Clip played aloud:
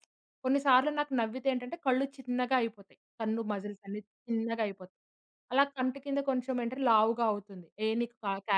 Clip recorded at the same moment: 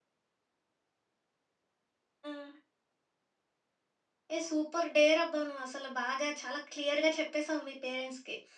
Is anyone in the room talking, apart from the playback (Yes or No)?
Yes